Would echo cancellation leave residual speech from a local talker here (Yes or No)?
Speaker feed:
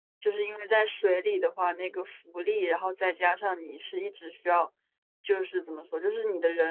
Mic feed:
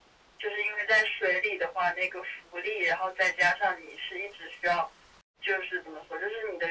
No